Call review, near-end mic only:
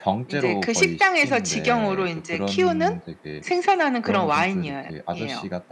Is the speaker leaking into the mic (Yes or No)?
Yes